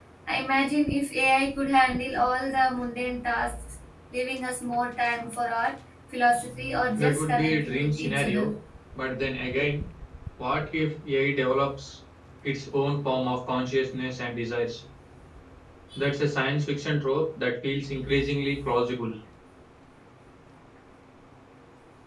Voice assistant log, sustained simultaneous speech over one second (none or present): present